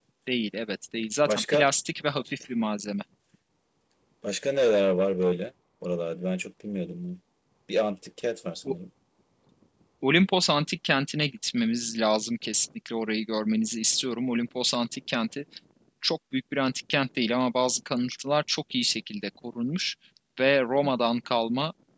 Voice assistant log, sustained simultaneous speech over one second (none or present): none